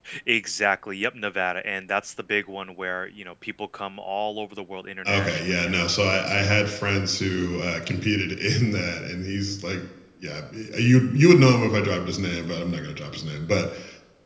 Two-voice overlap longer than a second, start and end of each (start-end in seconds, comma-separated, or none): 5.1-6.6